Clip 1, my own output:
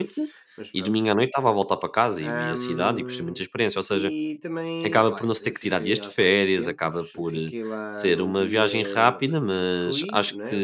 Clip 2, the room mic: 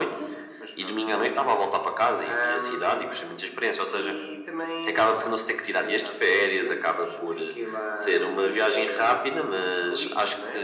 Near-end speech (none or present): none